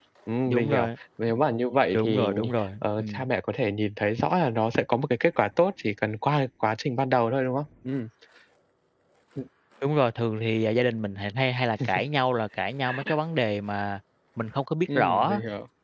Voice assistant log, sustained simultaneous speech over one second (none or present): none